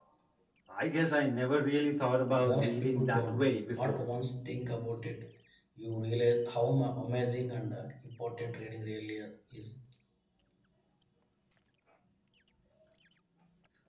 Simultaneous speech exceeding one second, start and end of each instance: 2.5-4.1

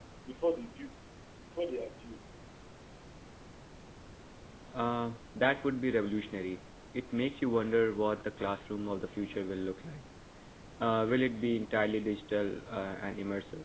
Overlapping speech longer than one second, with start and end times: none

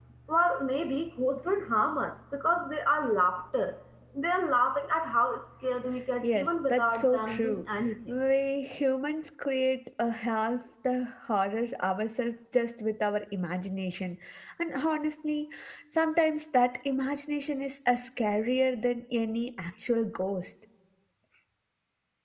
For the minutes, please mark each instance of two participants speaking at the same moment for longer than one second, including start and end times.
6.2-7.6

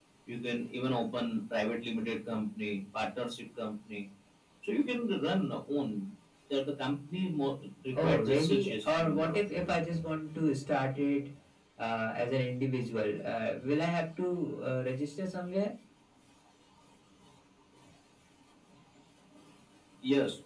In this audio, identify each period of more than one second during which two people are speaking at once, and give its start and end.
8.0-9.4

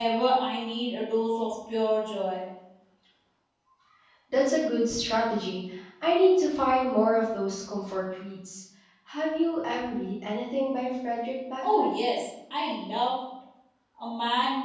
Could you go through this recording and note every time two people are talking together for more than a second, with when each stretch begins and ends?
none

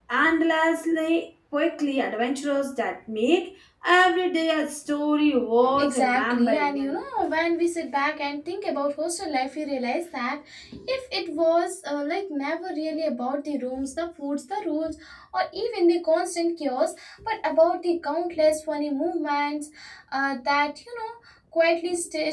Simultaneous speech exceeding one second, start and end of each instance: 5.8-7.0

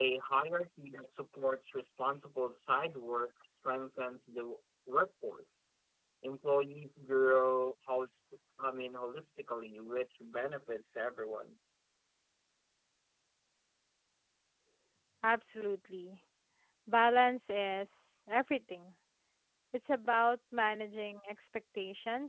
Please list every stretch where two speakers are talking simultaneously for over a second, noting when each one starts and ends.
none

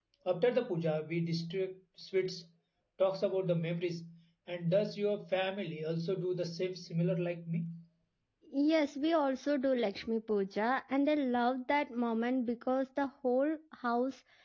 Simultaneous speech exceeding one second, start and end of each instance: none

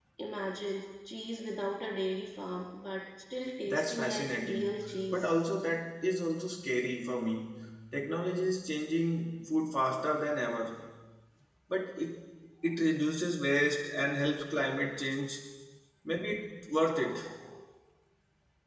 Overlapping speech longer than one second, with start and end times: 3.7-5.3

